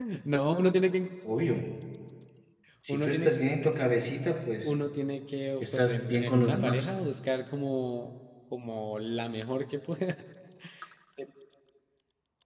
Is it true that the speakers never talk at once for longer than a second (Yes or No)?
No